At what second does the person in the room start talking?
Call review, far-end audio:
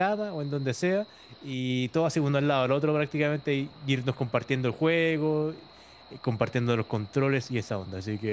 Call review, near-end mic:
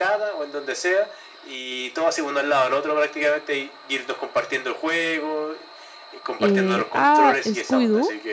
6 s

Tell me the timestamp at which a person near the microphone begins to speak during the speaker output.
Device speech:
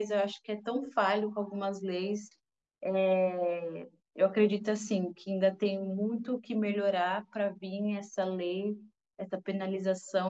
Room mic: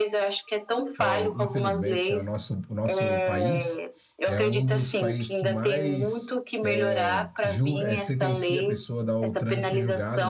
1 s

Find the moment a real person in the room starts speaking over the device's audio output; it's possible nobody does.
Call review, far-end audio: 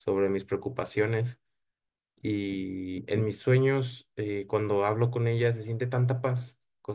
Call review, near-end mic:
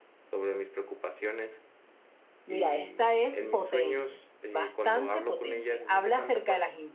2 s

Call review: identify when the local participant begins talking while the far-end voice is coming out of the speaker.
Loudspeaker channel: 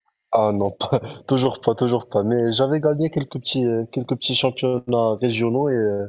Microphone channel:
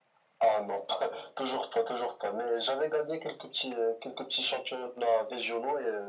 none

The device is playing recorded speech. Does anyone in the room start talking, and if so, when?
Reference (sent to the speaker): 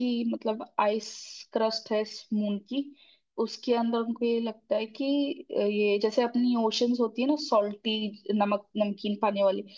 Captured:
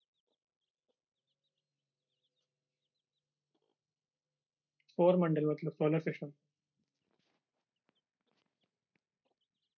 5 s

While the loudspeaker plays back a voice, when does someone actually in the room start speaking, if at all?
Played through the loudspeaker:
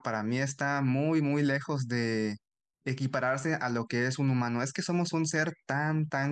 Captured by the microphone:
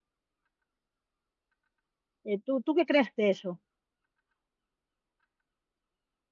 2 s

